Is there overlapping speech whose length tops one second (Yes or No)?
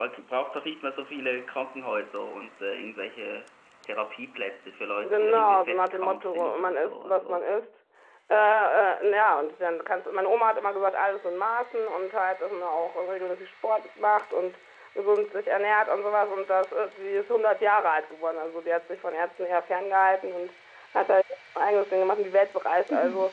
Yes